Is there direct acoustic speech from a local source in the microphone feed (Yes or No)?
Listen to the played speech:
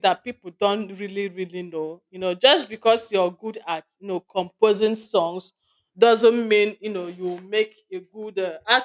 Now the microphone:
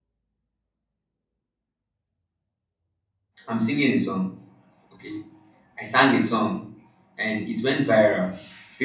Yes